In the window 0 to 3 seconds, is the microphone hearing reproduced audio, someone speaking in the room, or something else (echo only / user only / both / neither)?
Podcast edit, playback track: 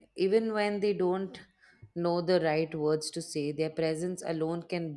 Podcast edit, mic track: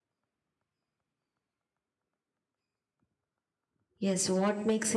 neither